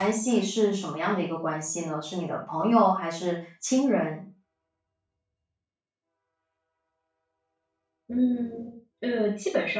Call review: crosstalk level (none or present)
none